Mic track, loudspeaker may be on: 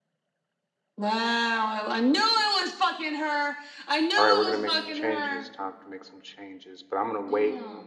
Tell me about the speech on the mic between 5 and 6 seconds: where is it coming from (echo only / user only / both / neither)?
both